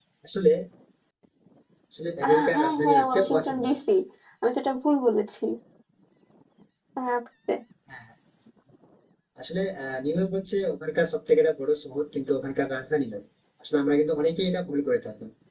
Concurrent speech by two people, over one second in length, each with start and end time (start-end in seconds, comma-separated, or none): 2.3-3.7